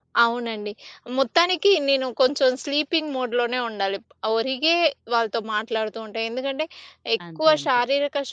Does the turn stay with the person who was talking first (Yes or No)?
Yes